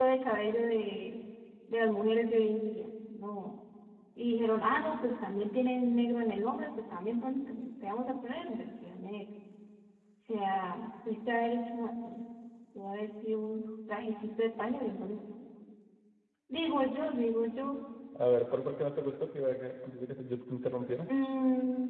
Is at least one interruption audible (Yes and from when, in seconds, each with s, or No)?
No